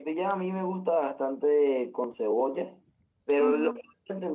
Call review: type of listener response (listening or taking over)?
listening